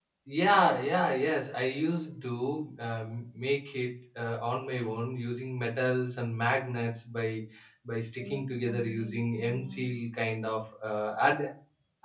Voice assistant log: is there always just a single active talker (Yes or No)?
No